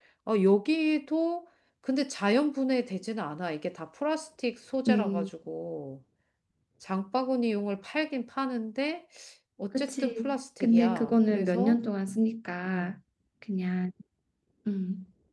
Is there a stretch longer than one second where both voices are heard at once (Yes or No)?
Yes